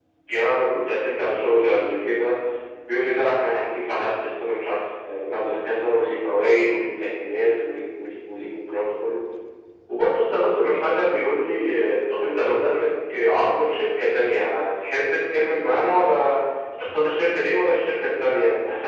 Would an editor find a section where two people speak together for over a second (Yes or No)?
No